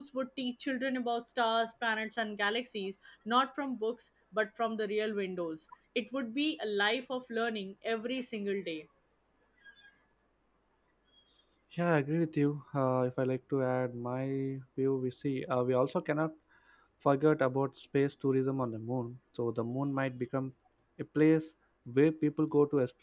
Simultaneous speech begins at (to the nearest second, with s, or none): none